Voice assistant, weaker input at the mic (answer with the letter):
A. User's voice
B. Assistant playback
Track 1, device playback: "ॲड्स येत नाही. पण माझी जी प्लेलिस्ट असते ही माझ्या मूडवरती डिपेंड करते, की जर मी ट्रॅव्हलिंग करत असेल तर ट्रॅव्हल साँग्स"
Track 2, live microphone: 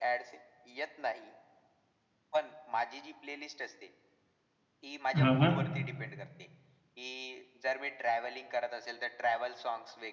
B